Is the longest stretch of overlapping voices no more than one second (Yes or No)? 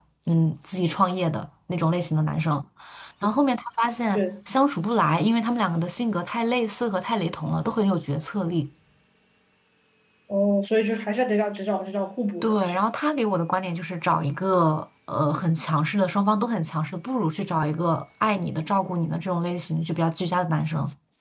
Yes